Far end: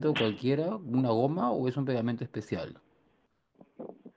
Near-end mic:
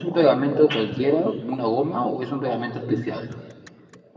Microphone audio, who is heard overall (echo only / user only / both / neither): echo only